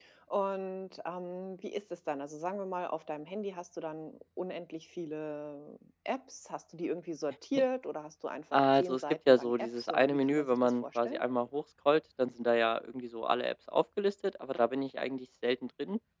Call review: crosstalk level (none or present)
present